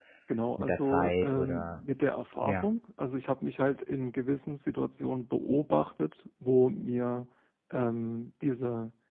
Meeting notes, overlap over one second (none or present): present